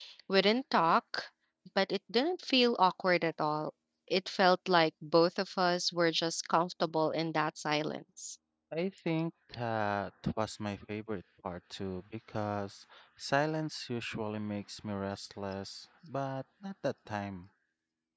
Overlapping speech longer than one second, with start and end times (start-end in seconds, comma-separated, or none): none